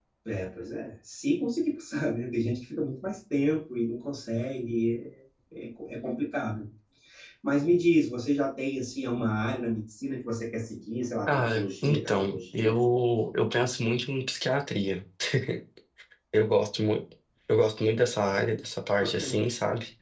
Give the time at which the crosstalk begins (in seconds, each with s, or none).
11.3 s